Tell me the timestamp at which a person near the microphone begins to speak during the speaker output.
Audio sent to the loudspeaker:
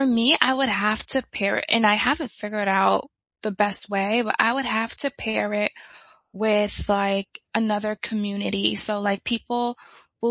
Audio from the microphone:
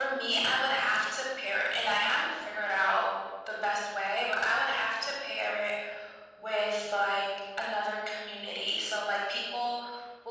none

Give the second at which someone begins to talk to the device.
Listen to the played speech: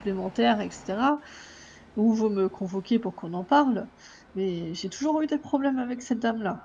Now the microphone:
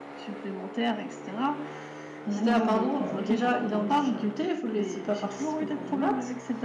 2 s

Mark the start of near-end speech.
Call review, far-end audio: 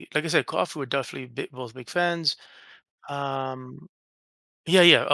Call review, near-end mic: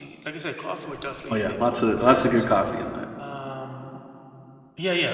1 s

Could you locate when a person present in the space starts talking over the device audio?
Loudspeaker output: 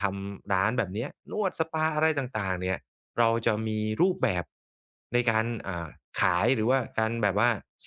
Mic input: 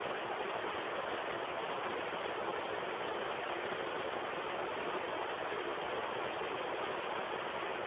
none

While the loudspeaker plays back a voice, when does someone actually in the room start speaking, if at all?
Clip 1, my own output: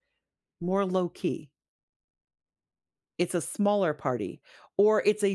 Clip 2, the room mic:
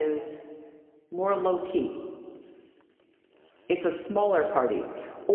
none

